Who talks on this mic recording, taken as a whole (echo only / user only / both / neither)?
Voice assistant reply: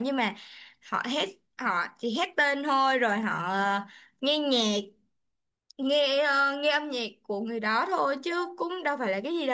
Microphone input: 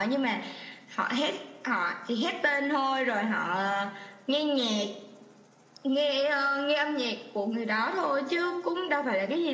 echo only